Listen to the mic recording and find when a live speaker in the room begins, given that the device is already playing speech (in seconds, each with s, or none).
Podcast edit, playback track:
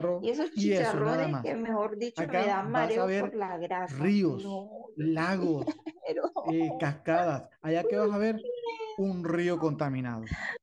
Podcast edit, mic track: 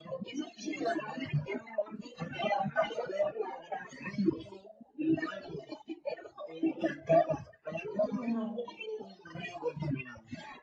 8.0 s